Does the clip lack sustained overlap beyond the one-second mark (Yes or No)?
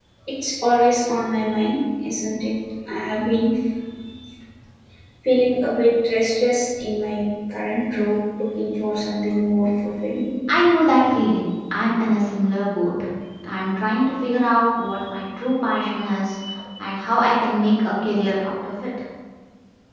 Yes